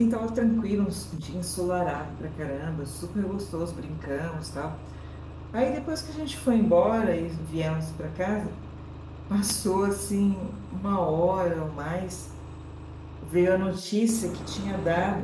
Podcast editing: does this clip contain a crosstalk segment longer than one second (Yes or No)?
No